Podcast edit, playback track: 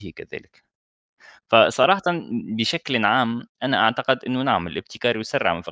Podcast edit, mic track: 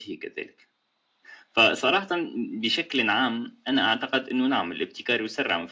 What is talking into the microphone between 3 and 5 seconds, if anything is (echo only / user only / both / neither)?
echo only